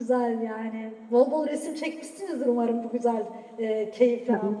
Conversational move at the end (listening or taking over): taking over